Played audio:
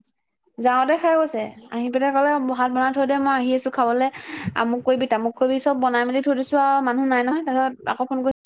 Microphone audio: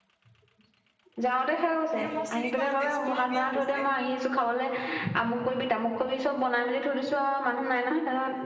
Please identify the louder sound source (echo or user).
echo